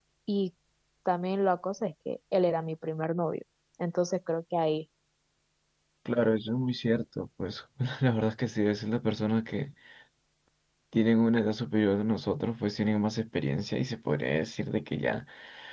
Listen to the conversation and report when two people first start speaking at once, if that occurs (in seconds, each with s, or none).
none